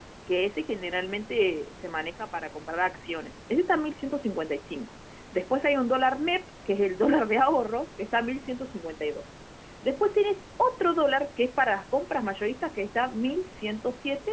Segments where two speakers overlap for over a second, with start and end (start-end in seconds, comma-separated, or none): none